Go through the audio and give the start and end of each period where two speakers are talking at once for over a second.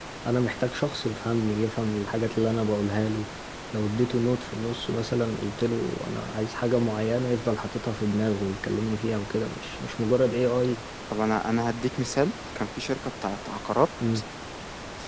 none

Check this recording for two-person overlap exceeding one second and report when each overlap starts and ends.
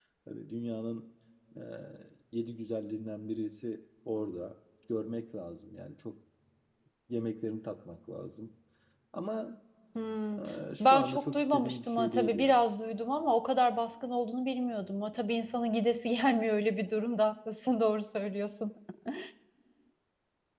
10.8-12.6

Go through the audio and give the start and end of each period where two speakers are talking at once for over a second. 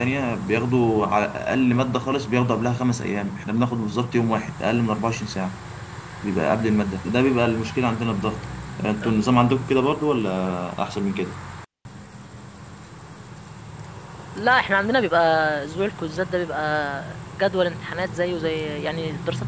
none

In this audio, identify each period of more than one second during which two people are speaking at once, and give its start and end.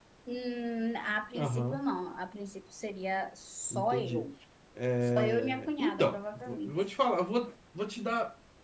5.0-6.7

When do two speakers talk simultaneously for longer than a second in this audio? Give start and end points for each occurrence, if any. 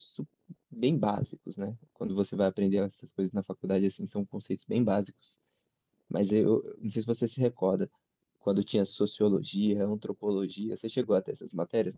none

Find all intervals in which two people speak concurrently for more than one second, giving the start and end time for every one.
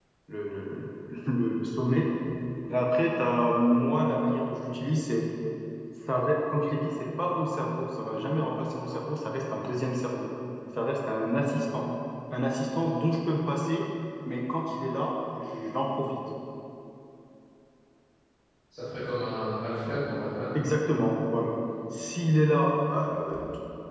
none

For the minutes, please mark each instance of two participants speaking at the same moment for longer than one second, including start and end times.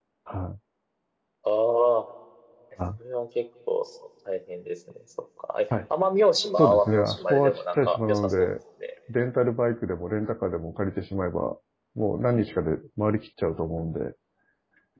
6.6-8.5

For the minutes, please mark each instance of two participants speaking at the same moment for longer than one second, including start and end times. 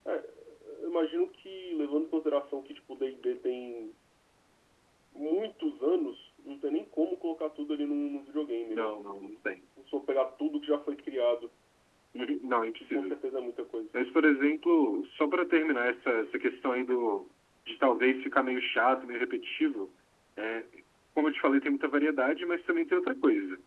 none

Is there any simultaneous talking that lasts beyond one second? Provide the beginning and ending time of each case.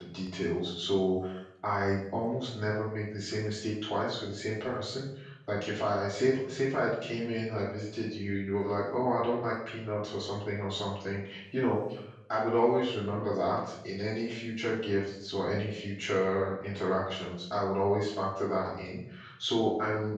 none

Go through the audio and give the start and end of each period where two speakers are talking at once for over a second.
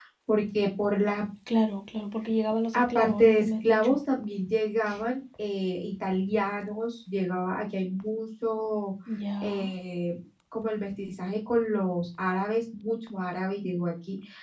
2.7-4.0

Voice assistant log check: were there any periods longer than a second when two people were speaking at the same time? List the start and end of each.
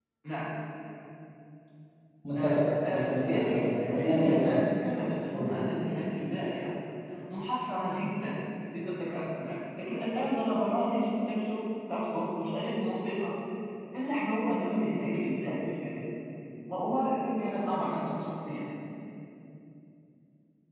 2.4-4.5

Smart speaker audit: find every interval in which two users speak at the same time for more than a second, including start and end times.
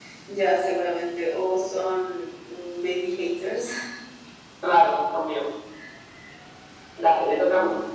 none

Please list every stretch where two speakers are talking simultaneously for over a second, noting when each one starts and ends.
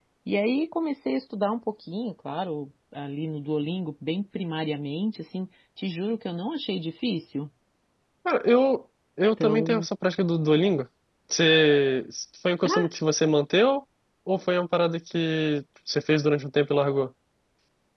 none

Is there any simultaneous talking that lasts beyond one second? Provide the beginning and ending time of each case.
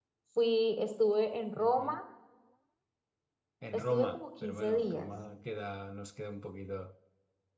3.7-5.1

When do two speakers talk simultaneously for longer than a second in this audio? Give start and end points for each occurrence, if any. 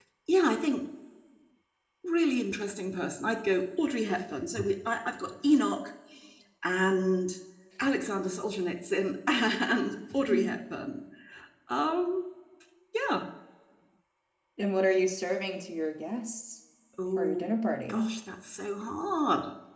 none

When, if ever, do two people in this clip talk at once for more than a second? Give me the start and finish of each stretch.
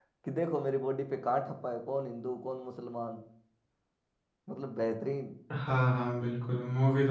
none

